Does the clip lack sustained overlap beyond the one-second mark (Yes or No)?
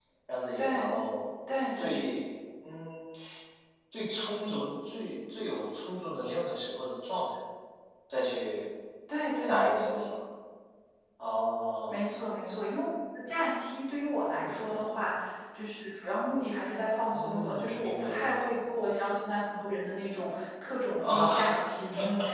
No